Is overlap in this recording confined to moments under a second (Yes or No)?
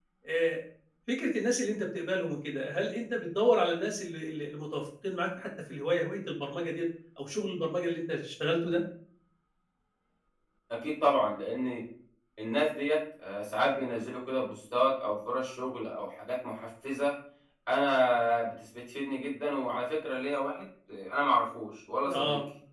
Yes